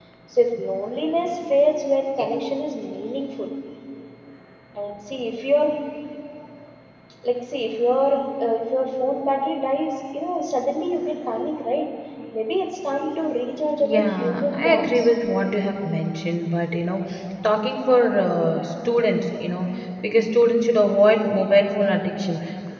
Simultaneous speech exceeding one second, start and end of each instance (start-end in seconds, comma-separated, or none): 13.8-15.1